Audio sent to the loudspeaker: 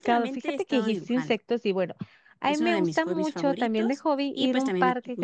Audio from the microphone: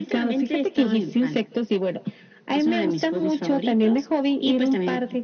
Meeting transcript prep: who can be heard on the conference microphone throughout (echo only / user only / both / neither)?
echo only